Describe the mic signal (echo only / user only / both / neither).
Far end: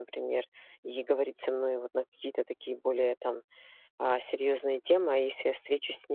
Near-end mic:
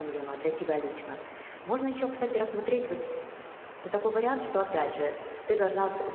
user only